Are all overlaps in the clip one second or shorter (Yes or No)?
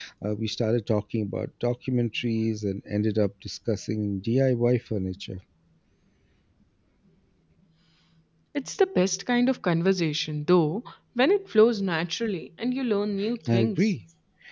Yes